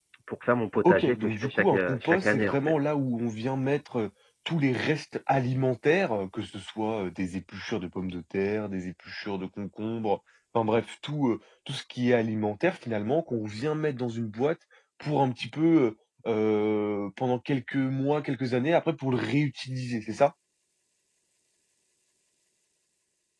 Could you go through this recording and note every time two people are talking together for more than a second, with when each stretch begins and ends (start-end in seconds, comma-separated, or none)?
0.8-2.6